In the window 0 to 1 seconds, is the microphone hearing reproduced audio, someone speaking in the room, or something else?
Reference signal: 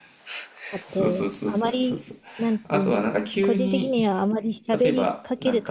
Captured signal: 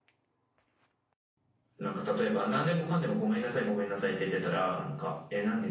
neither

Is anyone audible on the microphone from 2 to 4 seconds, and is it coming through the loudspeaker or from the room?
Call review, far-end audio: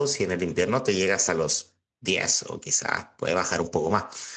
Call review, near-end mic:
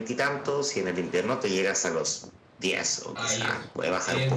both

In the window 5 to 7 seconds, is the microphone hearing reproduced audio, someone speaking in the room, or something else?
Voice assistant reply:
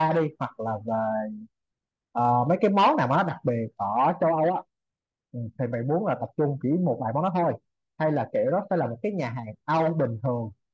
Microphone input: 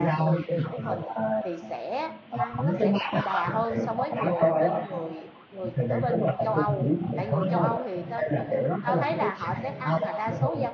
both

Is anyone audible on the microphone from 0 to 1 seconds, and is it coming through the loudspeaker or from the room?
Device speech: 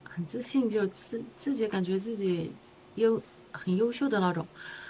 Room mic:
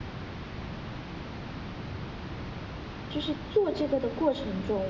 neither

